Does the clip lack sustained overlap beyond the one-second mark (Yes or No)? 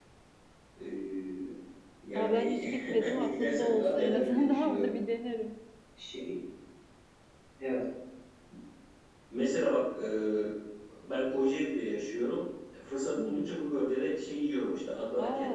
No